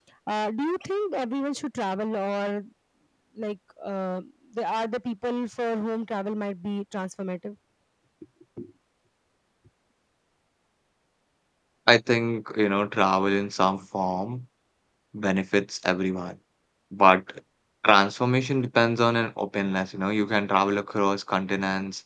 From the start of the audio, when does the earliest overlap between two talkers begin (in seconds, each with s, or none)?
none